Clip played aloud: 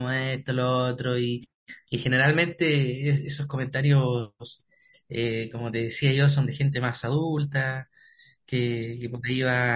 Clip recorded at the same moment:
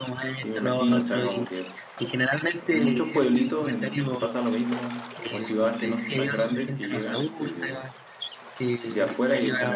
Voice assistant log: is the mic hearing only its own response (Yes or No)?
No